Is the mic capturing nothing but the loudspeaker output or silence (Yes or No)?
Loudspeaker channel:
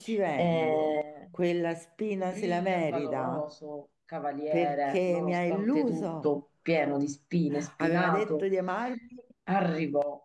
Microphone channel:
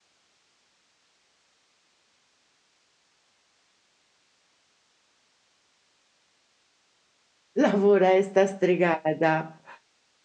No